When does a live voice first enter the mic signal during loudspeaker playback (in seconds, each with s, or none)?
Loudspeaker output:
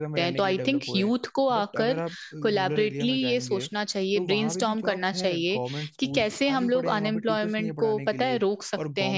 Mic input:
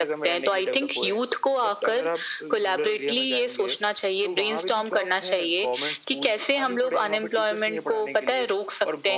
none